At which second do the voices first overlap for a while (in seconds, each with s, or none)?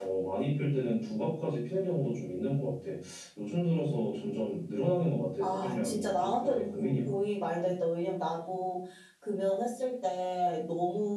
5.4 s